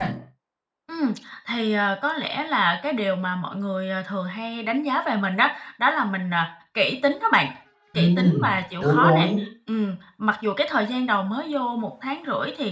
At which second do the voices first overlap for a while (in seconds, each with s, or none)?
8.0 s